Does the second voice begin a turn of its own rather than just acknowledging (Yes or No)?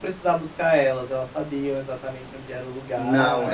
Yes